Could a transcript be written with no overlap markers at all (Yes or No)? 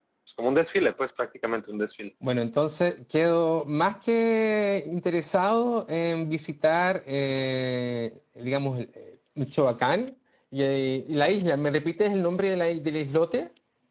Yes